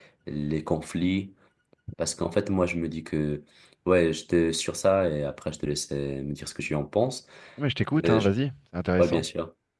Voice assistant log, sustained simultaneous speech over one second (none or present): none